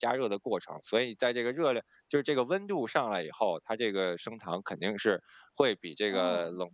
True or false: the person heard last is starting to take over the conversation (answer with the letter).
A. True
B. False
B